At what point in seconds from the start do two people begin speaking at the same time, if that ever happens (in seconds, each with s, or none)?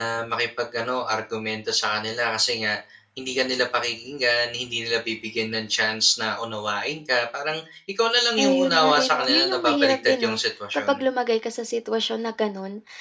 8.4 s